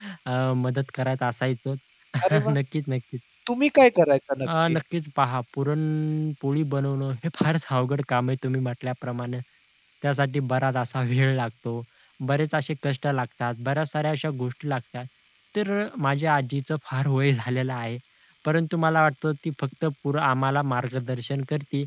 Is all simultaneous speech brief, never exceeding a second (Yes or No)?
Yes